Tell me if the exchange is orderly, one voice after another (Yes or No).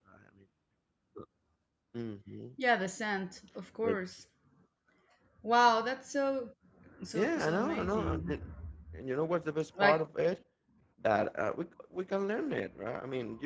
No